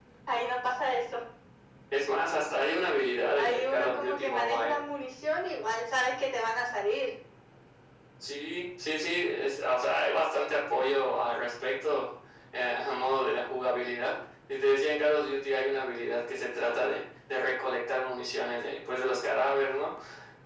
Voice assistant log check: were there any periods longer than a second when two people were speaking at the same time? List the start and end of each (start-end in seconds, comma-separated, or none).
3.4-4.8